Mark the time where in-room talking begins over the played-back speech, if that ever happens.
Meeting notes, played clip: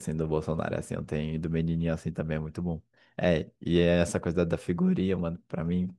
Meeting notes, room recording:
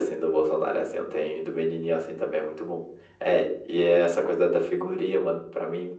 none

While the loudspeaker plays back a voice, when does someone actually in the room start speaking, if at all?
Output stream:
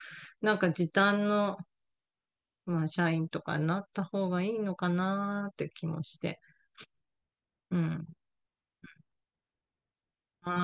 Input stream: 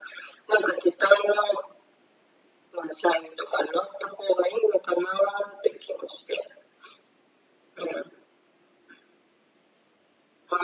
none

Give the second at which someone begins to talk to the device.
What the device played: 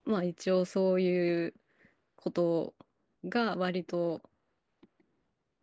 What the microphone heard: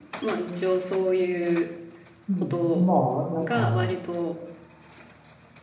2 s

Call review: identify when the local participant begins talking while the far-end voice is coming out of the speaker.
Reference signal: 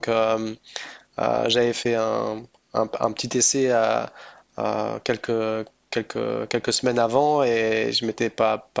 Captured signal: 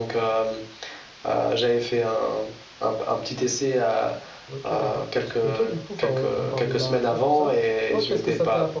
4 s

